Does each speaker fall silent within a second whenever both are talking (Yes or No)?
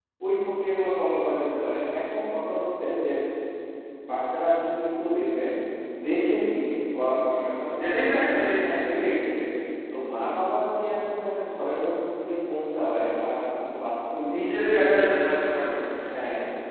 No